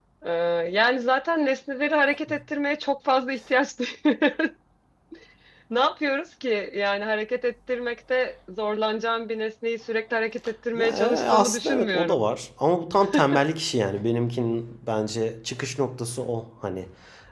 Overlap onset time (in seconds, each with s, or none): 10.8 s